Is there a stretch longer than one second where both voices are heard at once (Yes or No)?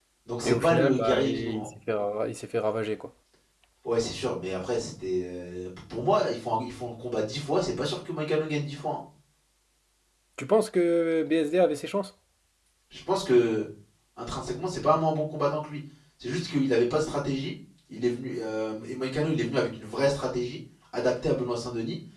Yes